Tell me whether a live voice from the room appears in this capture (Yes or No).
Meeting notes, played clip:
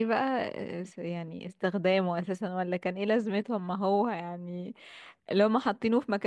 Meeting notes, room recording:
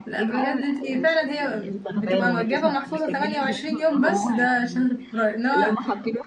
Yes